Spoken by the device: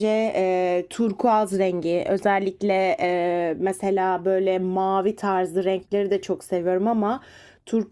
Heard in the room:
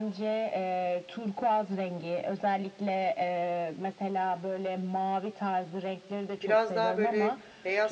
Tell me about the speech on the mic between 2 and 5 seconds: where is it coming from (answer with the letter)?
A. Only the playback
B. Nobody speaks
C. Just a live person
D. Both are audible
A